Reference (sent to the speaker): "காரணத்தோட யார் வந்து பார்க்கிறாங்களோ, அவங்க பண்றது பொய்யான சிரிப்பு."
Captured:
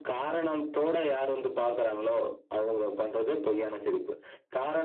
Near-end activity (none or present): none